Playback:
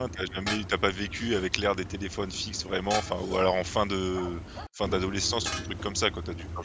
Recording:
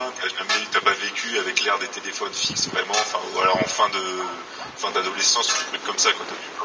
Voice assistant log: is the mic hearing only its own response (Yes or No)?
Yes